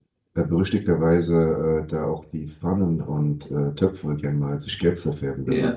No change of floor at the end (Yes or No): No